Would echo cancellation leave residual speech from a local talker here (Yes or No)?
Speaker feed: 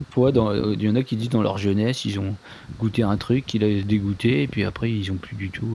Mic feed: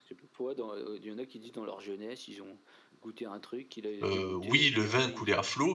Yes